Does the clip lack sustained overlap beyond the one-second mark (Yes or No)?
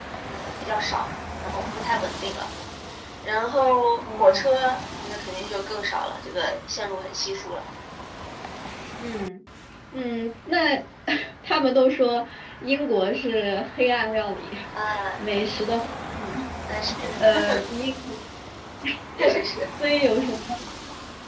Yes